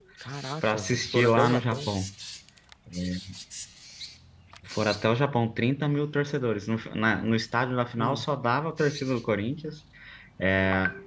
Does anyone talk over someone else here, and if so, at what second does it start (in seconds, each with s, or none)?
0.6 s